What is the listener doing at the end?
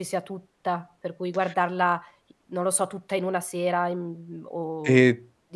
taking over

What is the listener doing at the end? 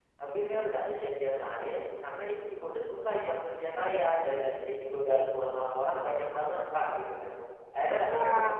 listening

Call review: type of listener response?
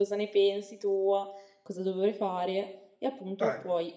listening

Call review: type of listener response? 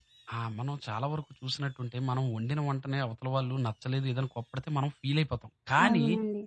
listening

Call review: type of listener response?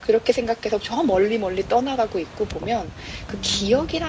listening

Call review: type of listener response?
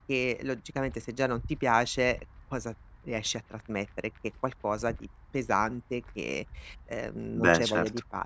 listening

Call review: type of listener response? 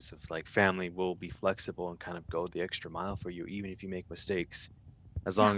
listening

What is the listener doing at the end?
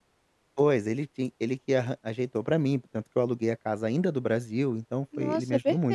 taking over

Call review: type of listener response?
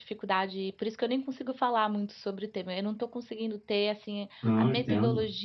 listening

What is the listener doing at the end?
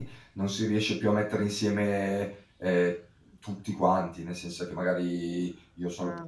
listening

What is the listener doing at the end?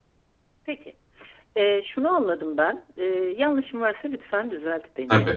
listening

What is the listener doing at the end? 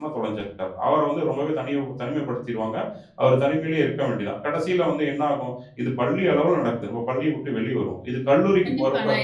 taking over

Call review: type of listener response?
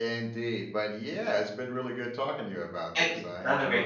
taking over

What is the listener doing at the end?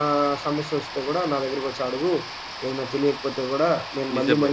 listening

